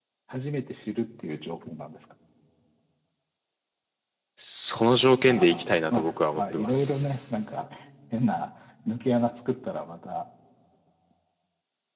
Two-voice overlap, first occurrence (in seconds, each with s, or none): 5.3 s